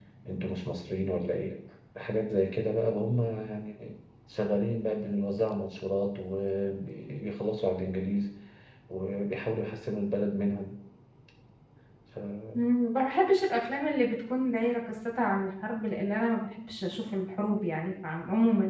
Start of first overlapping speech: none

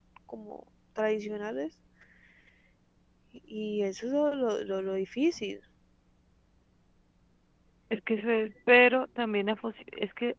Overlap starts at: none

